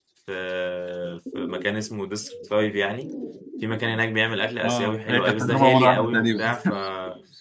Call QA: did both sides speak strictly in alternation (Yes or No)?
No